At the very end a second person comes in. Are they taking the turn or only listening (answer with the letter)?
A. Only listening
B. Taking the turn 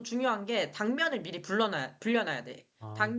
A